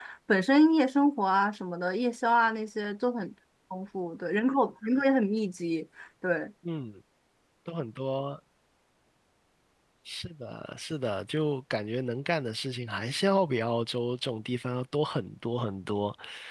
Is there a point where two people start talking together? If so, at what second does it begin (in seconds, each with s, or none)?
none